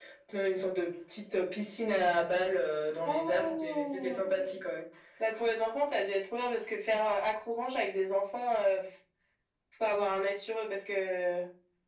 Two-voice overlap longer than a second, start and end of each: 3.0-4.2

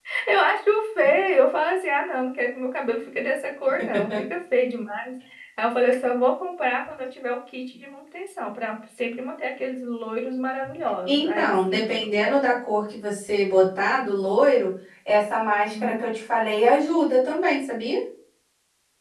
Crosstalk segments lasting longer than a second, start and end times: 11.1-12.3

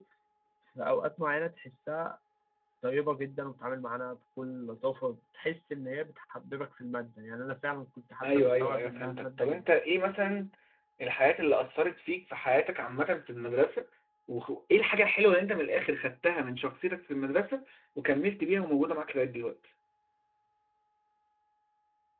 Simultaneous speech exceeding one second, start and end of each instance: 8.2-9.6

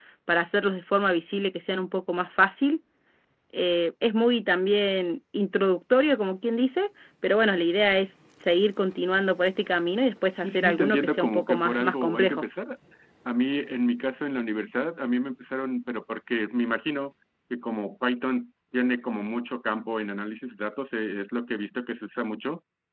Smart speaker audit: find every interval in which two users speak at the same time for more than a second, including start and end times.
10.4-12.4

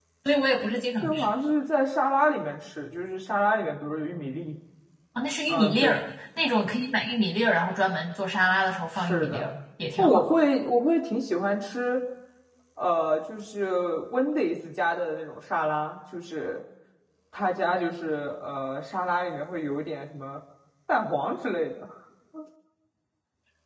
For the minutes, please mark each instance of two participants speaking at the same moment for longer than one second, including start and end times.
none

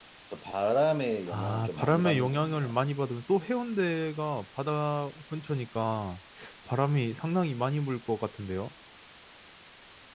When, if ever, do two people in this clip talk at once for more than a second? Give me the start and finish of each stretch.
1.3-2.7

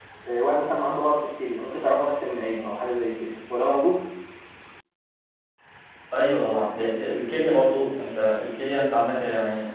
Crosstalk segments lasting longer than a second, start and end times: none

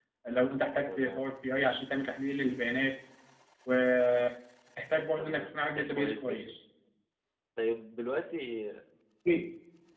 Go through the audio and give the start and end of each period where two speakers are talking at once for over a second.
5.2-6.5

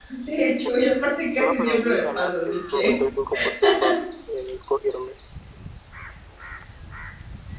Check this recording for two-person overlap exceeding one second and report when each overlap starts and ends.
1.4-2.9

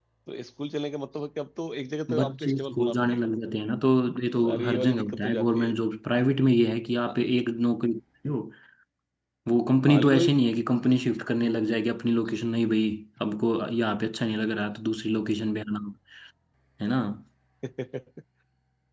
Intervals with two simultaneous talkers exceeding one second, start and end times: 2.1-3.3, 4.3-5.7

